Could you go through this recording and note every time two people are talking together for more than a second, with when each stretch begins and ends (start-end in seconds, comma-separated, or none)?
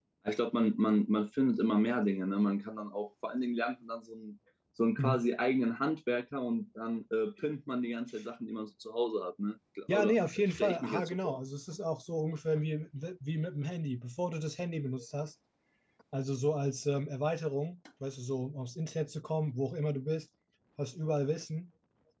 9.9-11.4